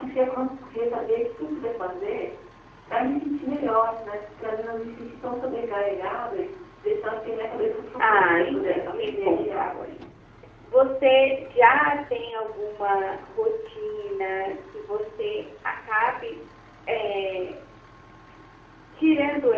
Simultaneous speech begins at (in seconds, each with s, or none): 8.0 s